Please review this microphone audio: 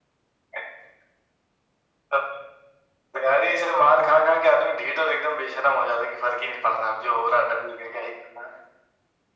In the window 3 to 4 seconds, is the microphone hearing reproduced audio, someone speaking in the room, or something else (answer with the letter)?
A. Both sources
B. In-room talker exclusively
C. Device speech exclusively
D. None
C